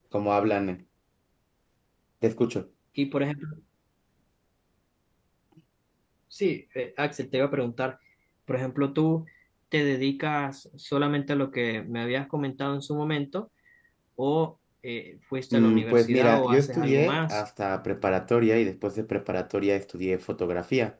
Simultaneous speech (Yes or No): Yes